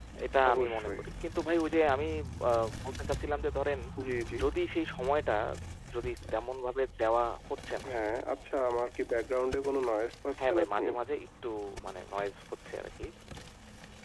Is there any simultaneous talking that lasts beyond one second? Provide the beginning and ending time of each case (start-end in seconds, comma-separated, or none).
none